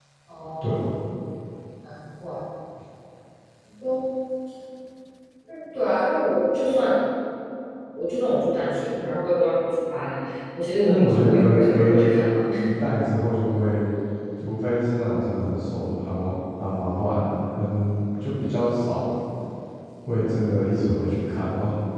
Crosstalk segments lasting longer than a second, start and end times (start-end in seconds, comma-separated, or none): 10.9-12.1